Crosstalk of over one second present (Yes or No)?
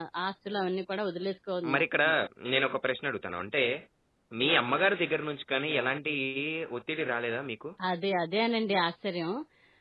No